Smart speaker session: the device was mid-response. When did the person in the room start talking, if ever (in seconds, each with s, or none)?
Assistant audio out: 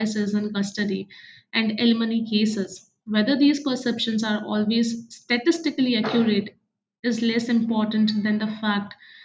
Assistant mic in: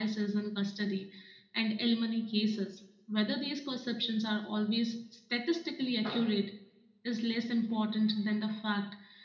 none